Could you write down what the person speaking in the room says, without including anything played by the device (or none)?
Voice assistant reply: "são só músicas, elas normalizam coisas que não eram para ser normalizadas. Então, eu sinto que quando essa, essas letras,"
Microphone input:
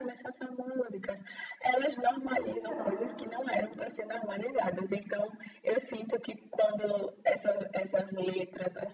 Então,